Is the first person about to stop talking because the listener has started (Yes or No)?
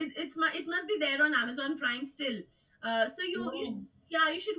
No